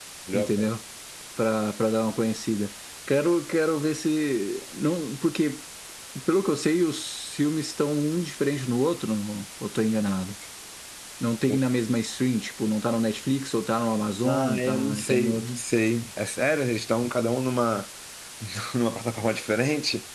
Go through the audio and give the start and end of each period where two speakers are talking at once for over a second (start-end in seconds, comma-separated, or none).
14.2-15.5